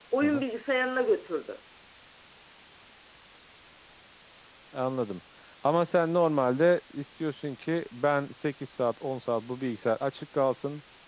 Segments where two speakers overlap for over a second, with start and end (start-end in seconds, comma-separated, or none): none